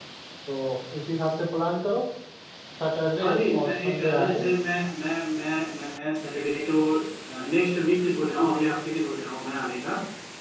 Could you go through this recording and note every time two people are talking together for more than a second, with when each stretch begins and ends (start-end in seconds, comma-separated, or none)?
3.2-4.5